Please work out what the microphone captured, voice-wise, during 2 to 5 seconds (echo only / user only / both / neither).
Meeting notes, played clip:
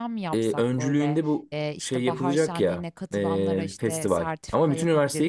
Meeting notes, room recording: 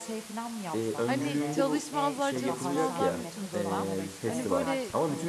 both